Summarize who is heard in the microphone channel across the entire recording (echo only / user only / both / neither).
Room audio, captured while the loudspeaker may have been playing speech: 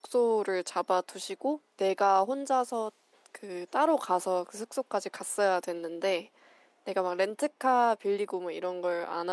user only